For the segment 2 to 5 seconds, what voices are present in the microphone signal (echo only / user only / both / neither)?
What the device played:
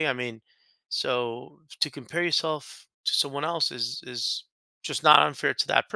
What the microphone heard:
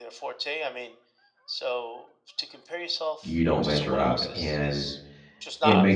both